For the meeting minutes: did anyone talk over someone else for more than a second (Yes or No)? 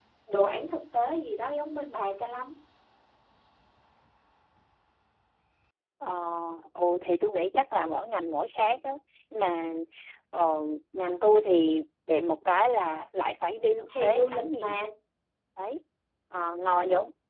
Yes